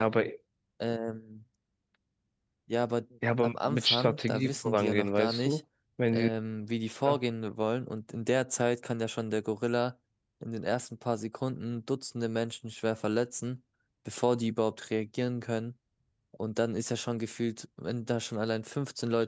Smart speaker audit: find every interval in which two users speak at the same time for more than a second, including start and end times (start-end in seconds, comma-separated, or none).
3.4-5.6